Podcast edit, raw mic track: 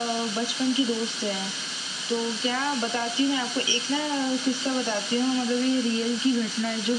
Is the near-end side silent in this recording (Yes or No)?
Yes